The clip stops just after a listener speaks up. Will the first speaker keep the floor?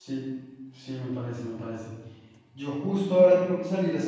Yes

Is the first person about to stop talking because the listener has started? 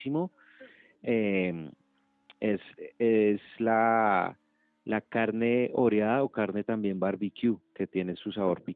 No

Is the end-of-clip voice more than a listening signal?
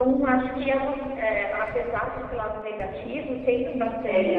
Yes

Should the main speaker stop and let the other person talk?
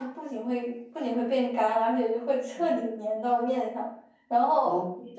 No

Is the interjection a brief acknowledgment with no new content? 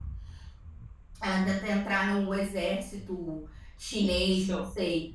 No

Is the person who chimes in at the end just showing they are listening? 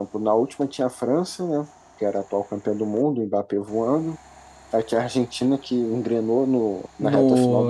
No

